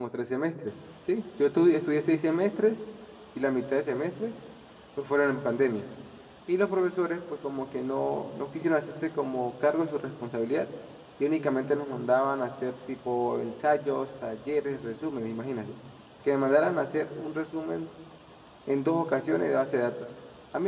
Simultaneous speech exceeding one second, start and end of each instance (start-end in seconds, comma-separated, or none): none